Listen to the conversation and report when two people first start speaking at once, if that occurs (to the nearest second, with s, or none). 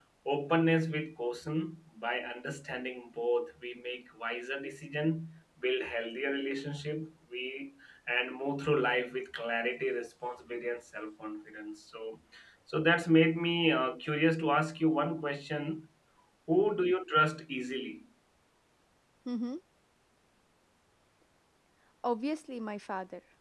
none